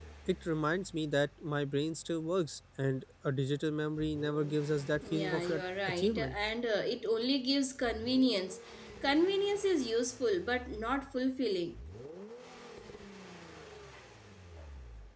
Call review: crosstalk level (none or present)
present